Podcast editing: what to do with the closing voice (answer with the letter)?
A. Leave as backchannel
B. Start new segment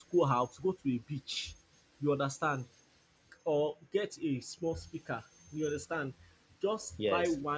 A